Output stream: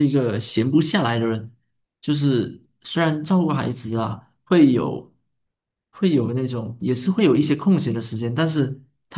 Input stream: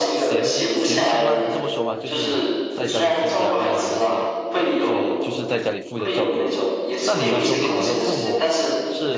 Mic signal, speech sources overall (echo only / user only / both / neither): both